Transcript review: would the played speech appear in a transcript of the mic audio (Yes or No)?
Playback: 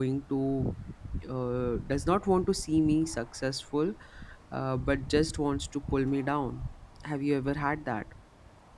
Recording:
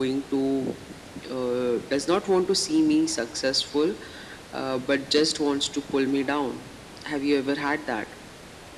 Yes